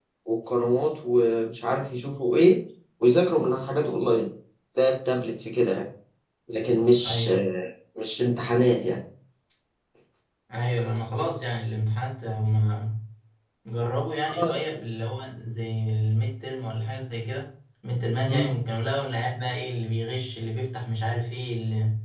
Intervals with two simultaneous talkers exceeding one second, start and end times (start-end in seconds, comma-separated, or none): none